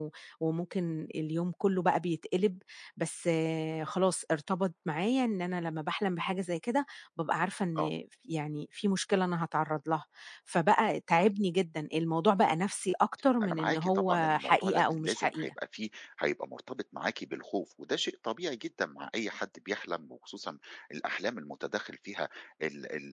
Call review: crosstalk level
present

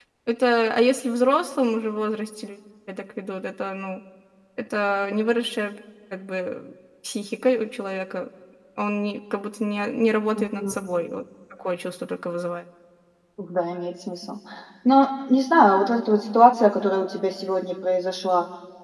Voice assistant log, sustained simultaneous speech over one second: none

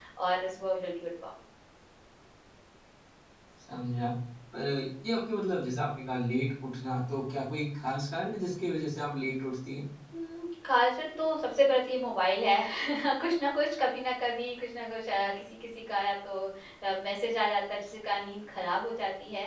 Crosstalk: none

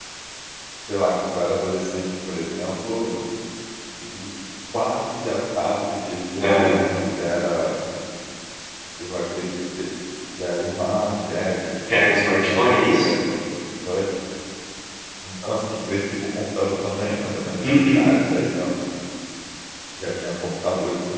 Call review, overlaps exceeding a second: present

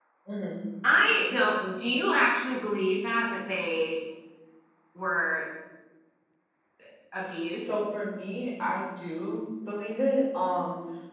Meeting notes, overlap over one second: none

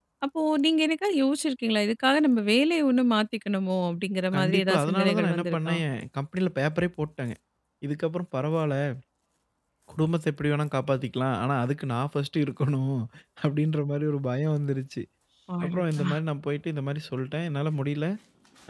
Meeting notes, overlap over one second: present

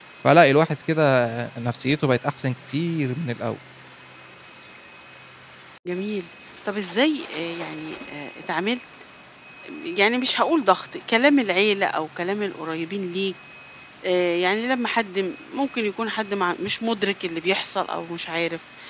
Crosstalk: none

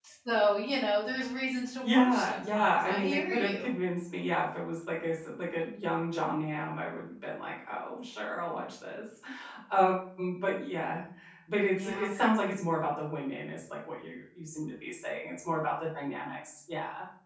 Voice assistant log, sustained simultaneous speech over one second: present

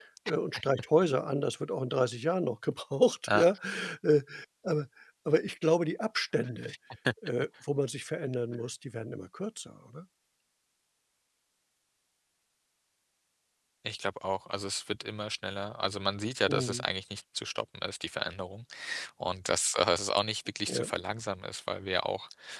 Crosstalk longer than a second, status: none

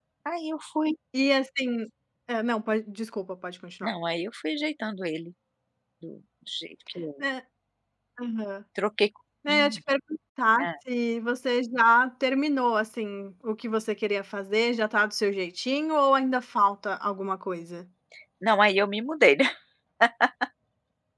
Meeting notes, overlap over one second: none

